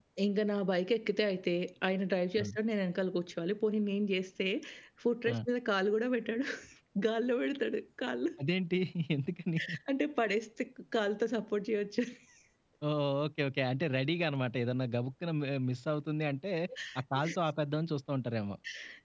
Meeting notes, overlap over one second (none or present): none